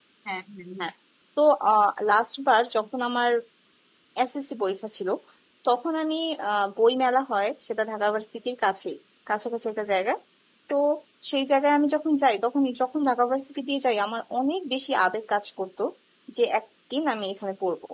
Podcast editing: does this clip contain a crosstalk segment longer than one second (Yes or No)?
No